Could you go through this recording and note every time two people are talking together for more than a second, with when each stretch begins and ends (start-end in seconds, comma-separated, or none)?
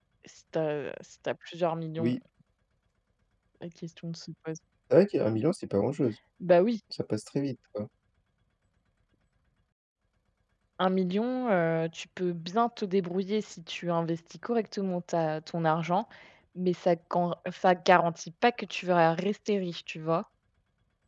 none